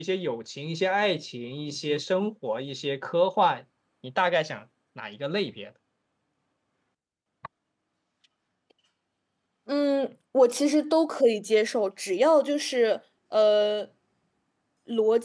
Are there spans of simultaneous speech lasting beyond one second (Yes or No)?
No